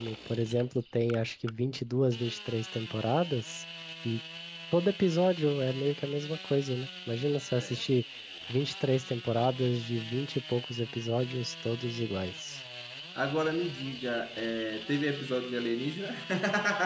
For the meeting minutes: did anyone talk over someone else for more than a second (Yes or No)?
No